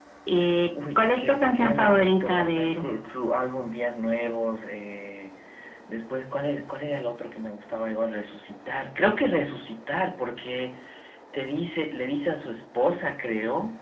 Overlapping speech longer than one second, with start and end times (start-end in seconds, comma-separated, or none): 1.0-2.9